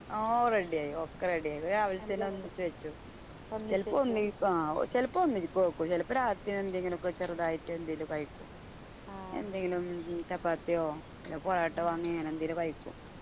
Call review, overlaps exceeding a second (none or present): none